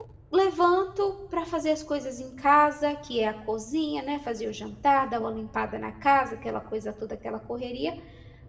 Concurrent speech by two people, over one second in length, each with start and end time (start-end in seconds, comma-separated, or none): none